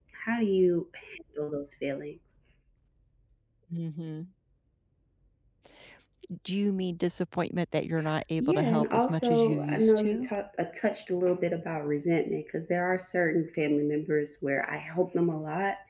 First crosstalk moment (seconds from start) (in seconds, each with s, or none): 8.4 s